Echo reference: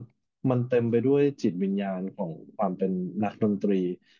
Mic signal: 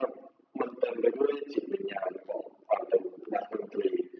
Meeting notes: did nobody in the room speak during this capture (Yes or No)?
Yes